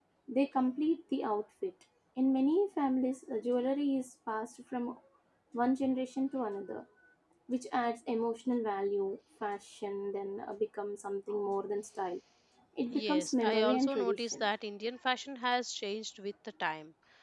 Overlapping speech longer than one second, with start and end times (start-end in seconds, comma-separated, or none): 12.9-14.5